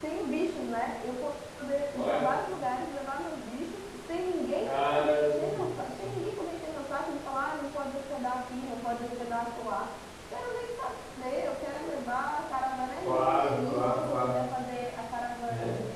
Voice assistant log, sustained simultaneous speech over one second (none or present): present